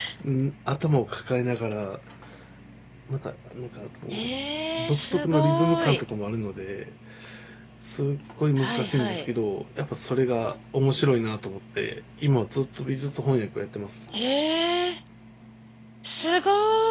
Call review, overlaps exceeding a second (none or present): present